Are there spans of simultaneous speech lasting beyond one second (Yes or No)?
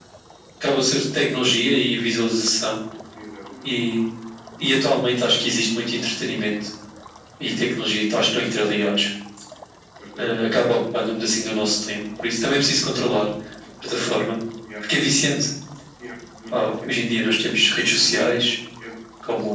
No